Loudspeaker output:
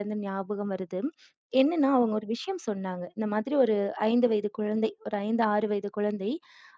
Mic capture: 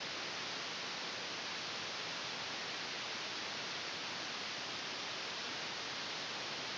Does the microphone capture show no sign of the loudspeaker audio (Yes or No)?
Yes